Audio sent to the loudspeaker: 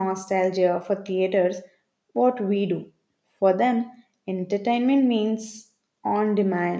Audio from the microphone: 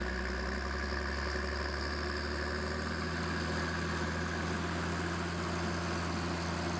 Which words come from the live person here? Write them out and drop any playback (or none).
none